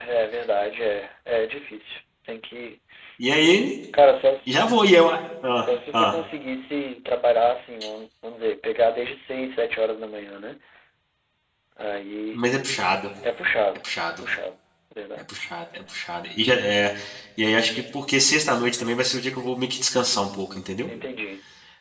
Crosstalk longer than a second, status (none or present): none